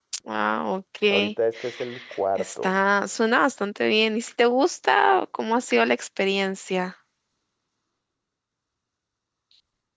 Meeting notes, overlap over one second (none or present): none